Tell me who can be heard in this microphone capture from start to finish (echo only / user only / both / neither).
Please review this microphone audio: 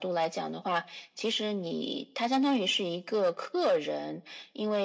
echo only